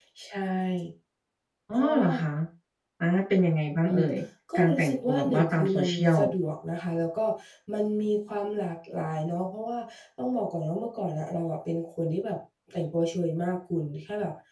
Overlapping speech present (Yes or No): Yes